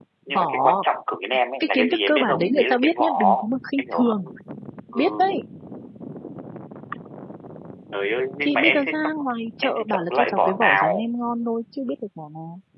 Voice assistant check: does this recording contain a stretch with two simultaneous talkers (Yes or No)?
Yes